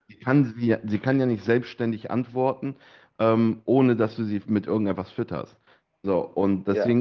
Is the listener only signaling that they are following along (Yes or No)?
Yes